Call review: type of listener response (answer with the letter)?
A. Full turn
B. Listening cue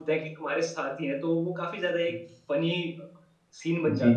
A